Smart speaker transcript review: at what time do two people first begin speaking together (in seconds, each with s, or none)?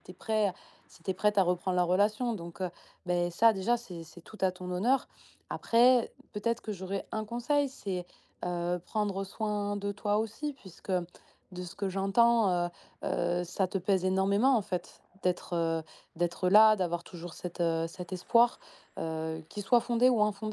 none